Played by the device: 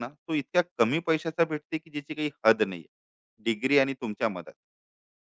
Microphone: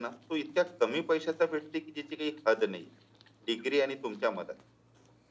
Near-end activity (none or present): none